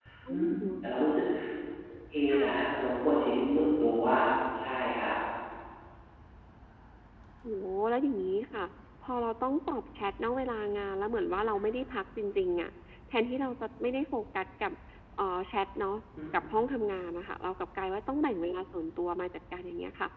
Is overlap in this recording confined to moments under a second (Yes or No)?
Yes